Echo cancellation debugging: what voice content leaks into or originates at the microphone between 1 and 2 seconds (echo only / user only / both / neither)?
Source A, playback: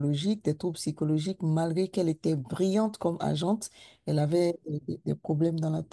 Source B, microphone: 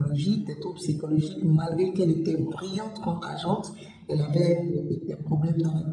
echo only